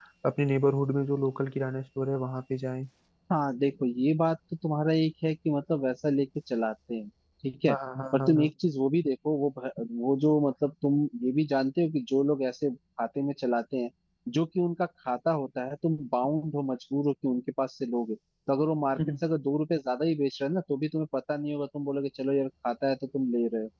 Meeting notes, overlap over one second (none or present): none